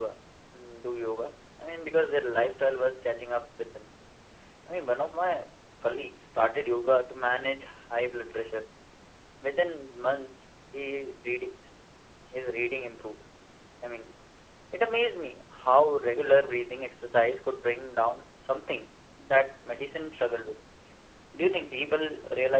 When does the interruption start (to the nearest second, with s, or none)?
none